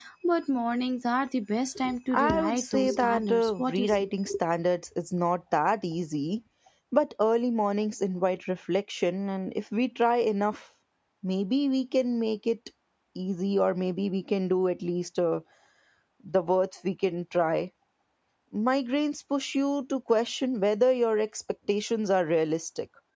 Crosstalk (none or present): present